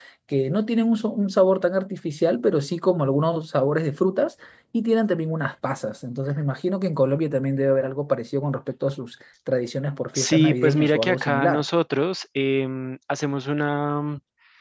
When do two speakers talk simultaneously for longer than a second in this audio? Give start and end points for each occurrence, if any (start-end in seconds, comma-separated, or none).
10.1-11.6